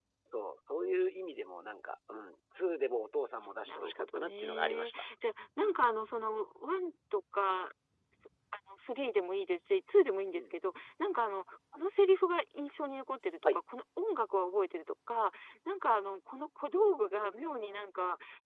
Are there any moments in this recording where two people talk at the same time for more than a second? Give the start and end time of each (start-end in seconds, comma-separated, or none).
3.7-5.0